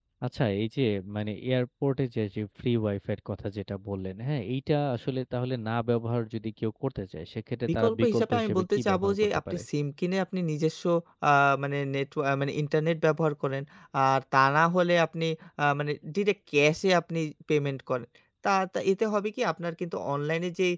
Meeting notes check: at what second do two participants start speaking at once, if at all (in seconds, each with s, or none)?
7.6 s